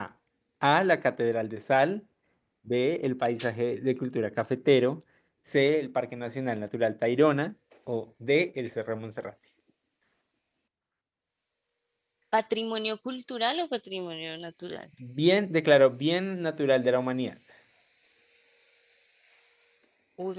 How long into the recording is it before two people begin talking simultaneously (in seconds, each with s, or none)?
none